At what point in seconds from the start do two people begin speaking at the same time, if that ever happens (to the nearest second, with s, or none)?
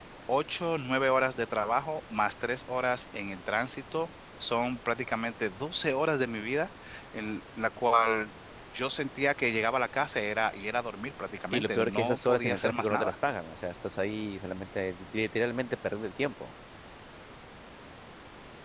12 s